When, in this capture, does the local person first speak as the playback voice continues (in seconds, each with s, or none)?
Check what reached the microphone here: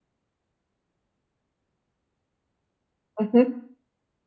3.2 s